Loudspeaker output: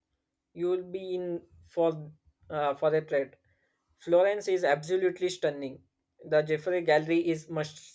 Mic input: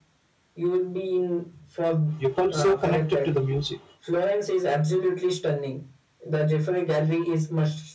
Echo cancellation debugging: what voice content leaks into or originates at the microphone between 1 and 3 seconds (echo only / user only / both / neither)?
both